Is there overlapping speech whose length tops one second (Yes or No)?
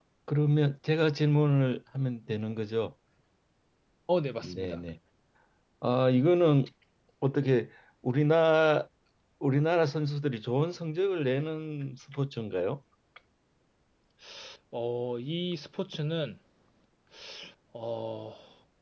No